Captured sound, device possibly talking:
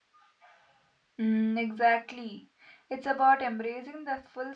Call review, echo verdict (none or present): none